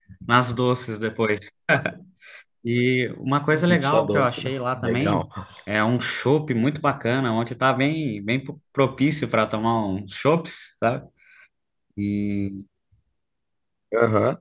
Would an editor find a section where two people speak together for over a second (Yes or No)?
Yes